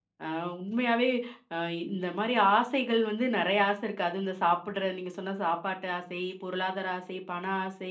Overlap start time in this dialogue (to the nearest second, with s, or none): none